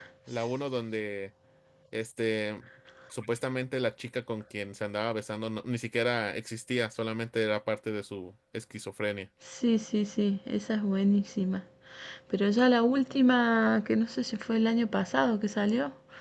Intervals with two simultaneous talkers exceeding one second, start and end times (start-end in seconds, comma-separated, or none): none